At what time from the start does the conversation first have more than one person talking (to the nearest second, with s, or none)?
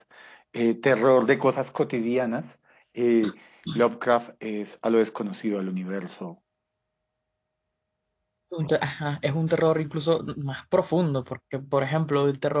none